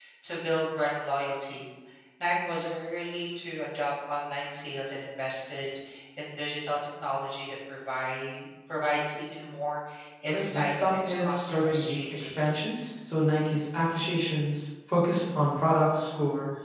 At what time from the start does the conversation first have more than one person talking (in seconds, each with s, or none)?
10.3 s